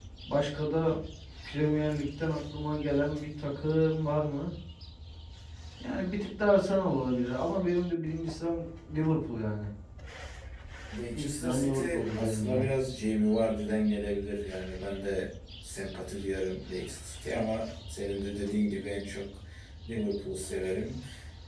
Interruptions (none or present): present